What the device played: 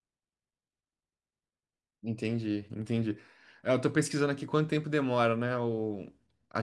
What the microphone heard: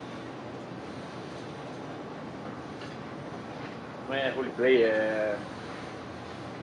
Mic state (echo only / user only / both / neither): user only